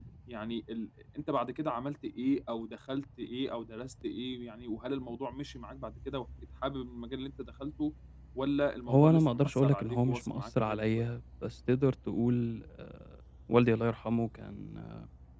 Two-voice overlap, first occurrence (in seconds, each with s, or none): 8.9 s